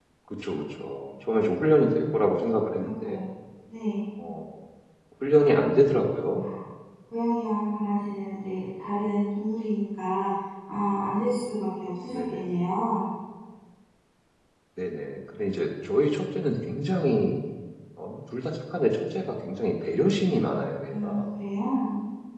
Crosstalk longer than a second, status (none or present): none